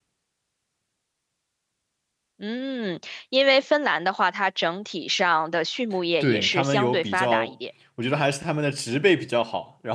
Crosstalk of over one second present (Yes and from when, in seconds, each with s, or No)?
Yes, from 6.2 s